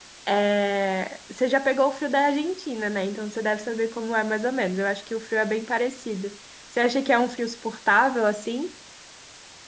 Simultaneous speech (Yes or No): No